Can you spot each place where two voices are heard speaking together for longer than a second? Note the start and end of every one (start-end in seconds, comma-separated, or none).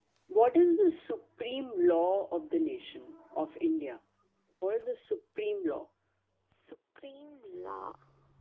none